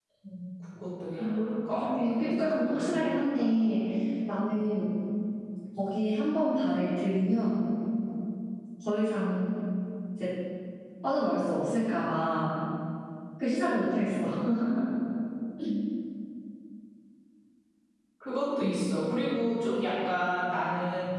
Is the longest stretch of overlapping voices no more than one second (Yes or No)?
No